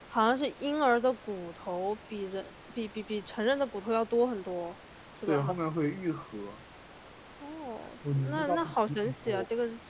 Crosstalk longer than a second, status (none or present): present